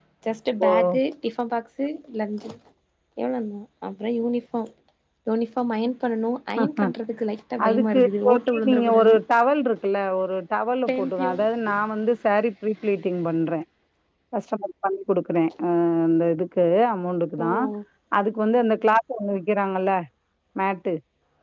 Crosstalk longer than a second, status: present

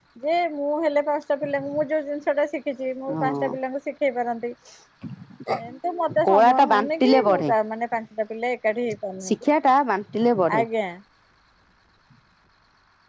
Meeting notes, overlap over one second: present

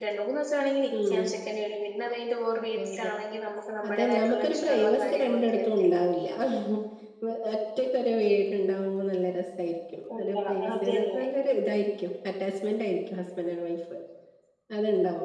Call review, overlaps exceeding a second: present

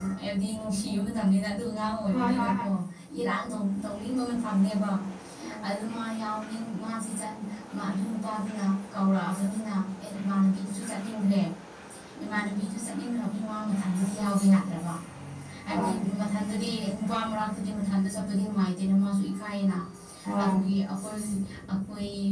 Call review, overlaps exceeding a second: none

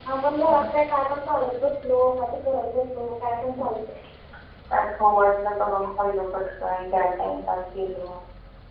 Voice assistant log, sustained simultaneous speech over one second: none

